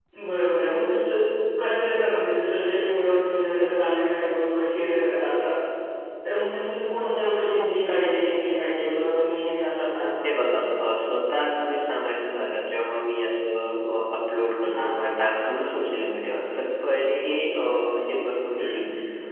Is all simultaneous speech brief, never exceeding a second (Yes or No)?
Yes